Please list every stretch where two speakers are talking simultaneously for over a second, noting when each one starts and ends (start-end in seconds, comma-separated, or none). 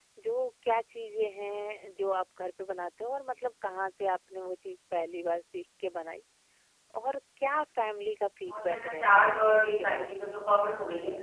8.5-10.1